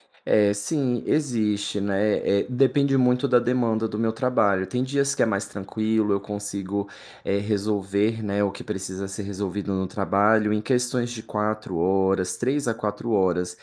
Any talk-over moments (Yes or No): No